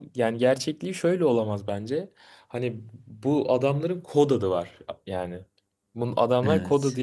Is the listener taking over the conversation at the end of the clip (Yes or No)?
No